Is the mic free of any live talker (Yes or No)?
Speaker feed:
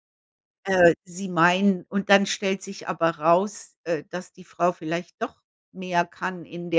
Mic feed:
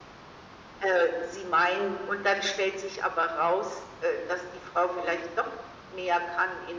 Yes